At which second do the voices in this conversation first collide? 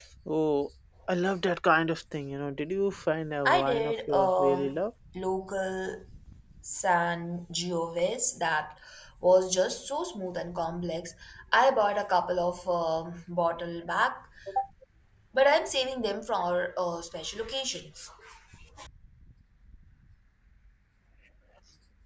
3.4 s

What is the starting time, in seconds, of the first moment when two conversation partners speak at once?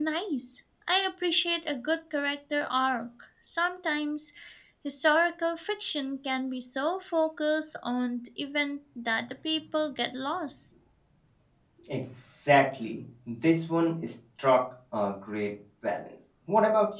none

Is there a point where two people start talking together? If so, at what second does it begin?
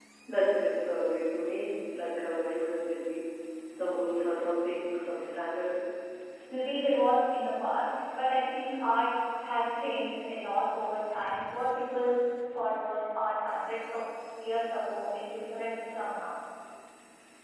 none

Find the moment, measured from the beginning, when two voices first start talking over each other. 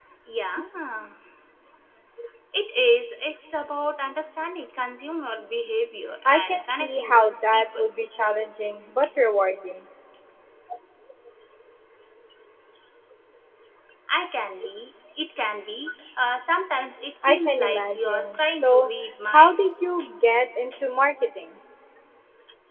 6.2 s

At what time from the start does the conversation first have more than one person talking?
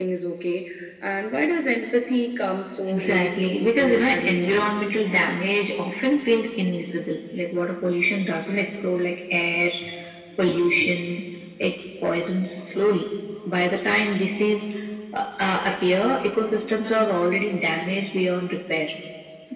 2.9 s

